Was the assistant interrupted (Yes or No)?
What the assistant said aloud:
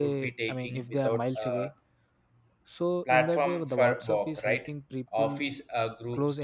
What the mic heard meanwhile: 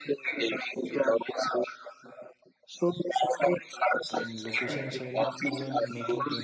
Yes